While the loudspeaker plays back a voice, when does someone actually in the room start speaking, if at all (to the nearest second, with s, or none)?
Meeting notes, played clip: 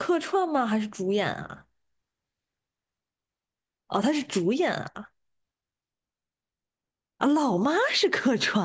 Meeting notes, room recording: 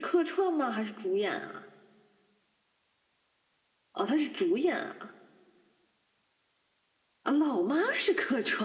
none